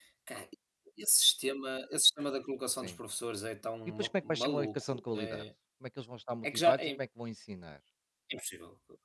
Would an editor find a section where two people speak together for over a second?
Yes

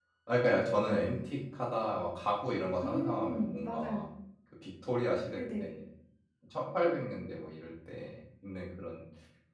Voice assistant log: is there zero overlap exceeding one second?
No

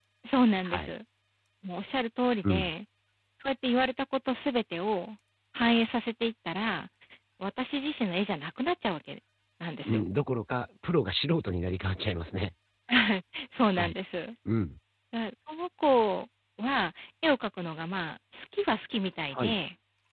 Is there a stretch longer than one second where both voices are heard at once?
No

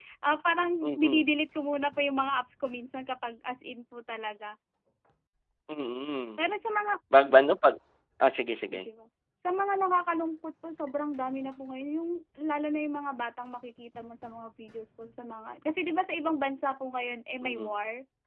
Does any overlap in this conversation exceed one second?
No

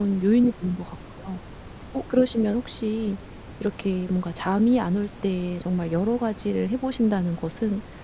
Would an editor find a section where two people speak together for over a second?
No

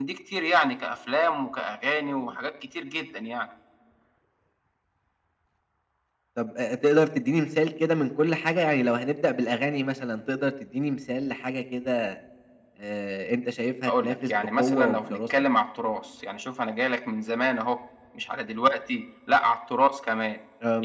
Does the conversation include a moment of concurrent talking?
Yes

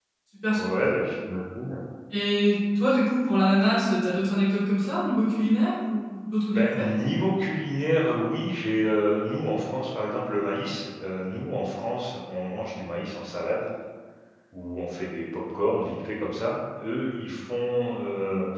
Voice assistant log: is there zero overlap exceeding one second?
Yes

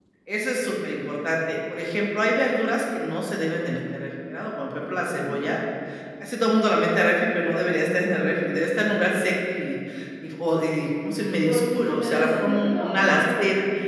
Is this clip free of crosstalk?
No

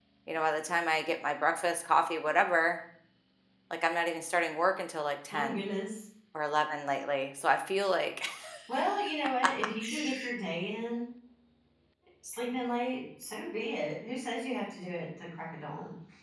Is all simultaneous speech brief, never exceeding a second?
Yes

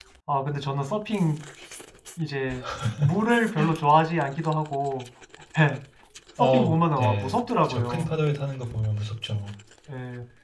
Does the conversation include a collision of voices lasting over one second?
Yes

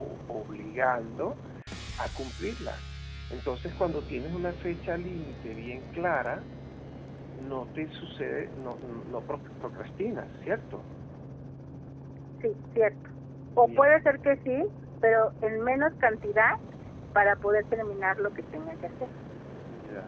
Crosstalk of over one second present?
No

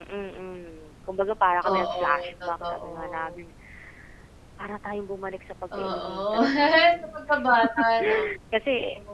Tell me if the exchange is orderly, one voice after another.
No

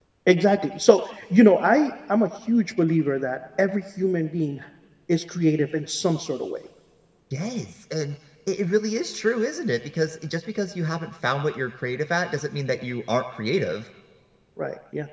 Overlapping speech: No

